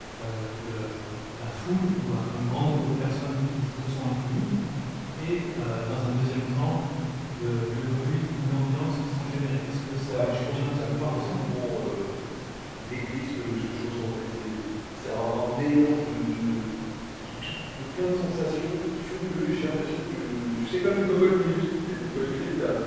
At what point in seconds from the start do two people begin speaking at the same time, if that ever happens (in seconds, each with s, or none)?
10.1 s